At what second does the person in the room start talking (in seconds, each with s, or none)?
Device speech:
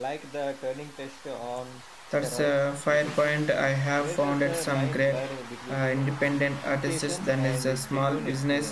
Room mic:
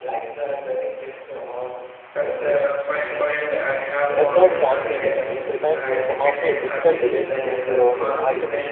4.1 s